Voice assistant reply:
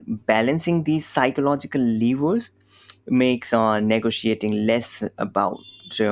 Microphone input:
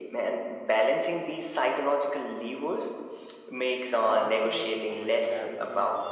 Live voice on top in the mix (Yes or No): No